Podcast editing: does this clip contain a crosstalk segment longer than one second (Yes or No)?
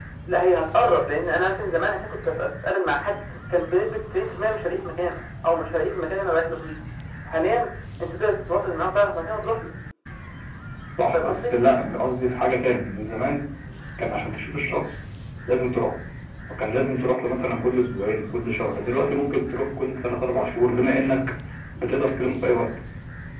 No